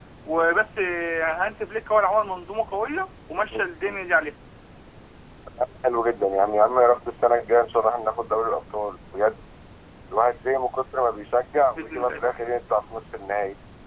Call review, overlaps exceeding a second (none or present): none